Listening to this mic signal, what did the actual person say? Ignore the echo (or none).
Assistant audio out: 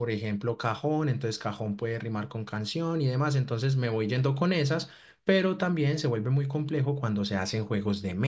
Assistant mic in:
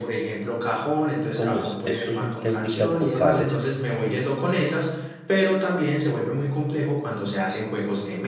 como es, estos son técnicas vocales,